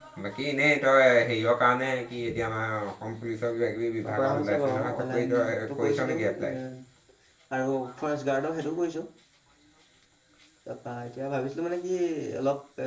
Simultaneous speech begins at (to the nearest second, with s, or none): 4 s